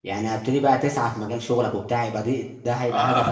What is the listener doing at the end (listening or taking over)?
taking over